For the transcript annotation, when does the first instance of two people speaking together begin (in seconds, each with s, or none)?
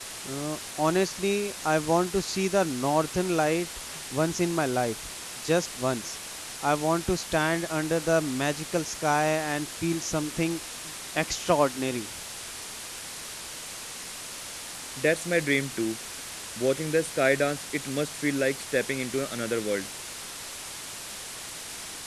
none